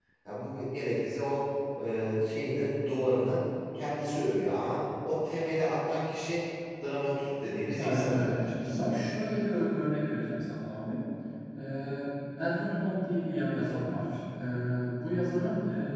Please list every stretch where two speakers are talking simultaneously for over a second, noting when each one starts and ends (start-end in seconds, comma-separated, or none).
7.8-9.0